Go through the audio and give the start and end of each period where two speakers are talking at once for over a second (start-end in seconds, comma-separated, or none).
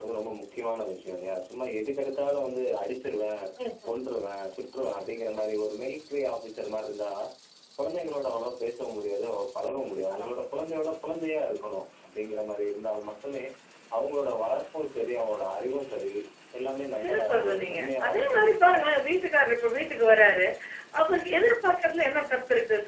17.0-18.9